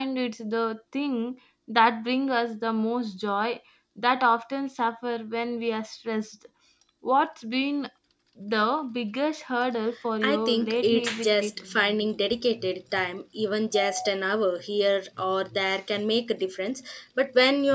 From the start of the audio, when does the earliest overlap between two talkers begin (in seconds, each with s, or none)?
10.2 s